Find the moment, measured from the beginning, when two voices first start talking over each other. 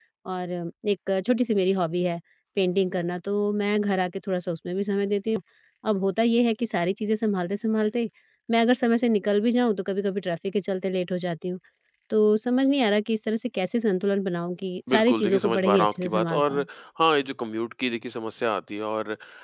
14.9 s

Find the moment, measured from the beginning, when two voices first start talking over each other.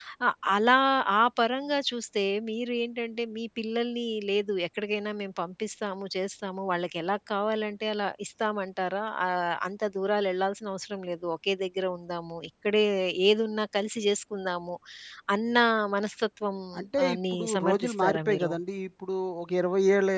17.1 s

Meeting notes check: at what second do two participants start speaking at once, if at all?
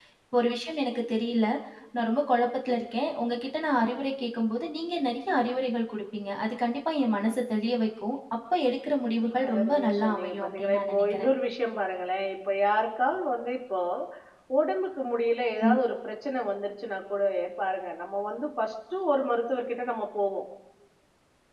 9.3 s

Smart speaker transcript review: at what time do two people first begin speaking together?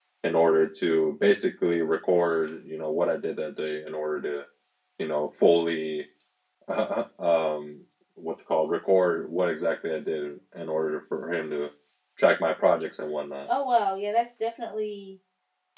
none

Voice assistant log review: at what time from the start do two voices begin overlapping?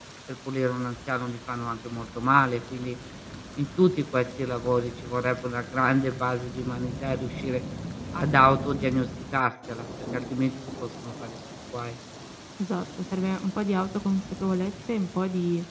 none

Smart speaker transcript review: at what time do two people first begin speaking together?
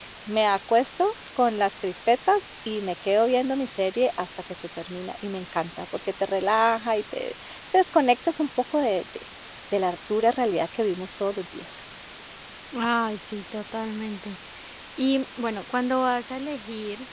none

